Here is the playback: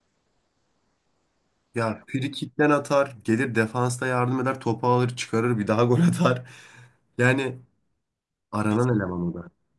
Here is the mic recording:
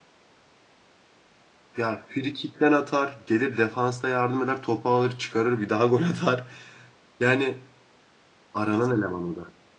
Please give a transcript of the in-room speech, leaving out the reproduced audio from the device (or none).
none